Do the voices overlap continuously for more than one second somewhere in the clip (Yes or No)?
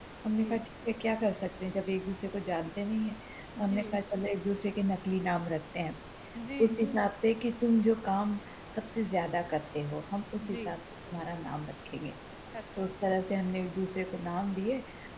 No